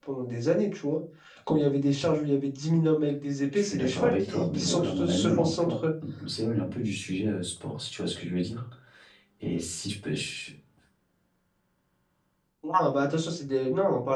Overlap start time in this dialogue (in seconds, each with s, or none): 3.5 s